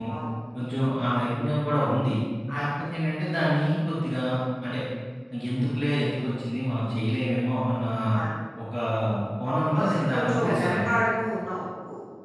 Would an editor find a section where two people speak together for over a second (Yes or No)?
Yes